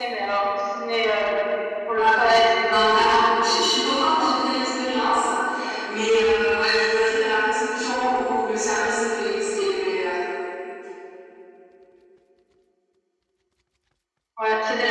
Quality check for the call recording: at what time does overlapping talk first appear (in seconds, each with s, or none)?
2.0 s